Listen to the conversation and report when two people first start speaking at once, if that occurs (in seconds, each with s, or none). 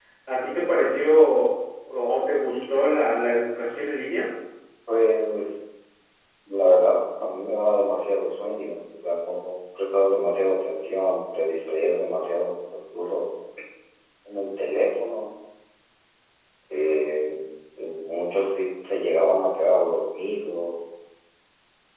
none